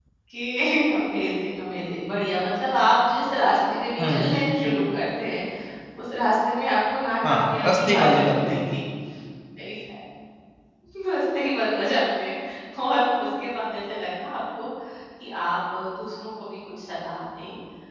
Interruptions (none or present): present